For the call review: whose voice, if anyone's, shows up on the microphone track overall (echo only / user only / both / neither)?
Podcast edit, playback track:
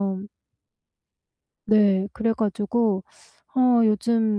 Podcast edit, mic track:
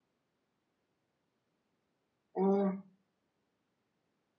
user only